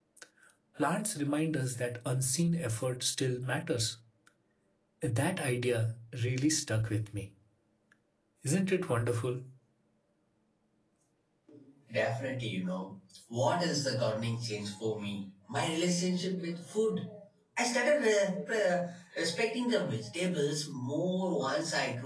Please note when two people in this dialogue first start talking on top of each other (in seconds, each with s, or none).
none